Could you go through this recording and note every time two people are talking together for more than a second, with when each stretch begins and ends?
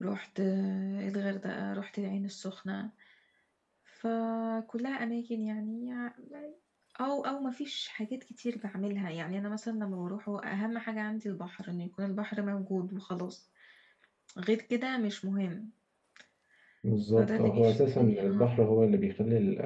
17.2-18.4

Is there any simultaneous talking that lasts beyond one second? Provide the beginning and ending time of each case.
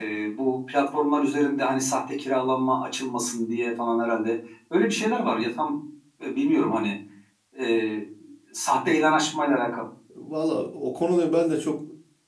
none

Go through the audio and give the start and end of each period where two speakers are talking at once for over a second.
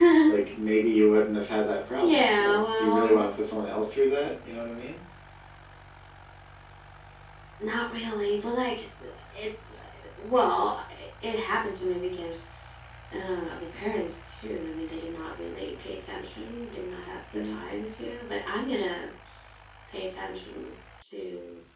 2.0-3.2

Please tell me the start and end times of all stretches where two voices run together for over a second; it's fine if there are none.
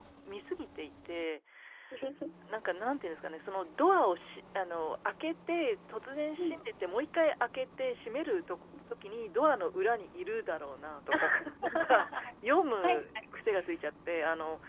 11.1-12.3

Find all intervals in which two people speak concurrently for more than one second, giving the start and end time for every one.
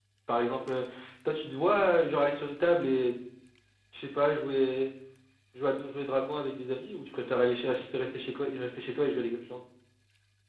none

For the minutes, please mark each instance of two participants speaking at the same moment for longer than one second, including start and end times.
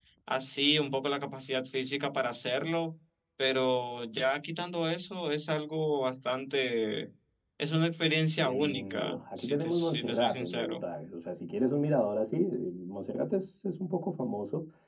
8.4-10.8

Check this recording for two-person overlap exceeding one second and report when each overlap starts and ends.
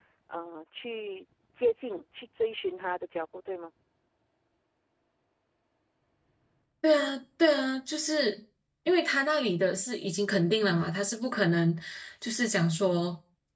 none

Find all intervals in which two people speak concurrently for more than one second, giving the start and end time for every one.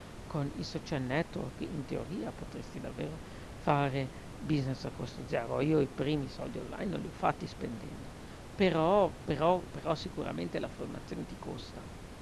none

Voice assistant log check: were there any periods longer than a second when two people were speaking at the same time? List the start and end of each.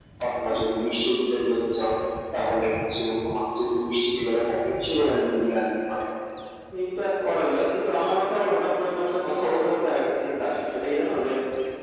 none

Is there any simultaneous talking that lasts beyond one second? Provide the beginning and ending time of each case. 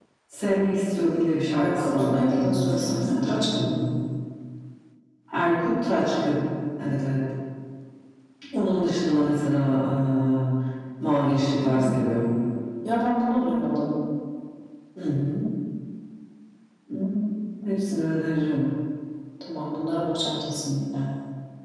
1.6-3.8

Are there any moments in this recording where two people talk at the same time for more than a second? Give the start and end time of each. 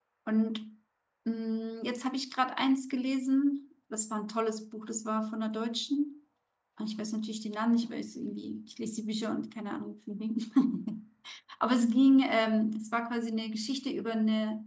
none

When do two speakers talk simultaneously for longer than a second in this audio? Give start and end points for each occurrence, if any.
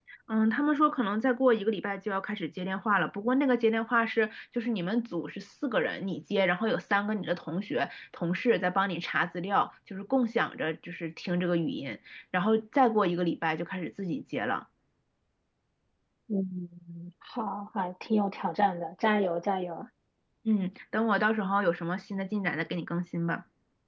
none

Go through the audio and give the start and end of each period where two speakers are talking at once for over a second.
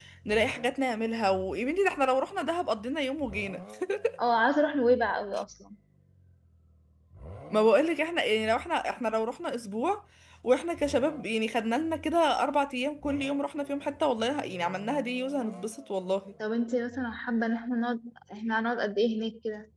none

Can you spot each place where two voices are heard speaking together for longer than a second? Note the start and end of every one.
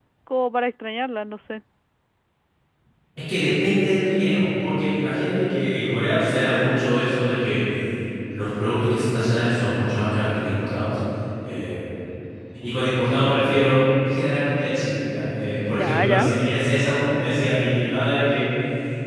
none

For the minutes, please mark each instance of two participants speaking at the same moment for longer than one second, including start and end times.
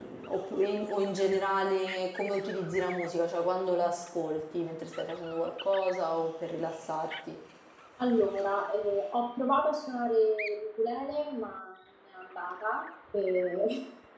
none

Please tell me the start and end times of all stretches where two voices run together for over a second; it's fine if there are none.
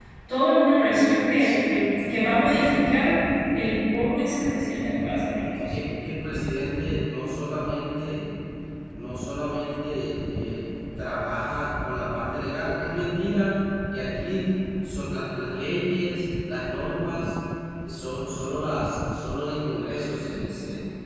1.4-2.9

